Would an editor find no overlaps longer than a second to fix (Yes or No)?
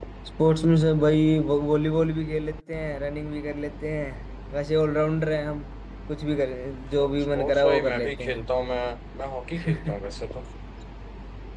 No